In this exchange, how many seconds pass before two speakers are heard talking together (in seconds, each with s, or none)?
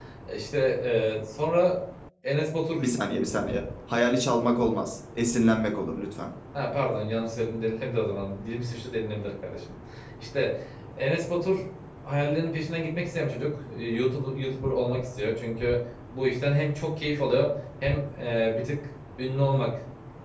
none